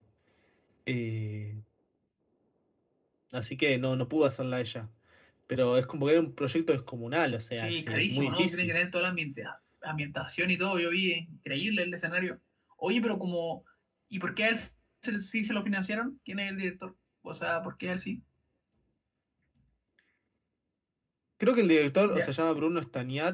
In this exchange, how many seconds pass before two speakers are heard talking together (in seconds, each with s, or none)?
7.5 s